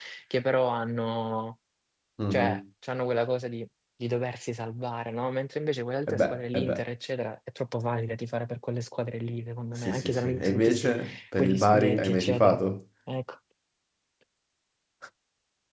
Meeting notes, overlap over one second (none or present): present